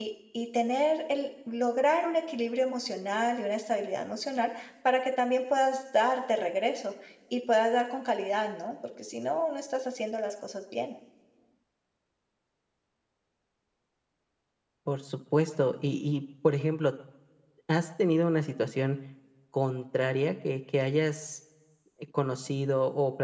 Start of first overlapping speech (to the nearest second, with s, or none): none